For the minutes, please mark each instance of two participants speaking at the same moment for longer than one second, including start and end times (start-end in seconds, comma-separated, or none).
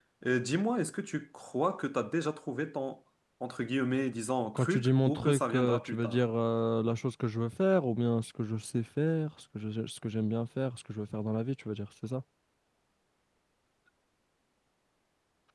4.5-6.2